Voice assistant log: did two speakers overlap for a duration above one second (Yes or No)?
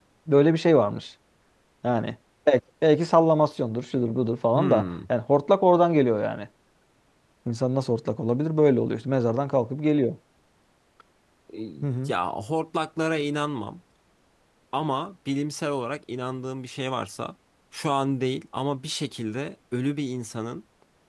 No